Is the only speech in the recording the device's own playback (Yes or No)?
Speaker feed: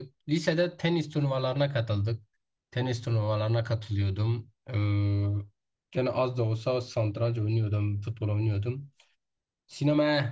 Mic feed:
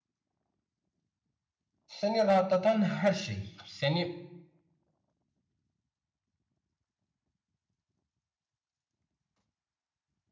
No